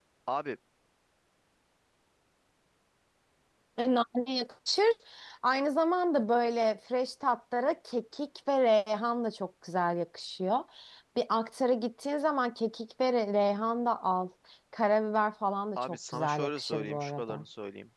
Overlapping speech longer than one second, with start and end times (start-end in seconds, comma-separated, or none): 15.8-17.4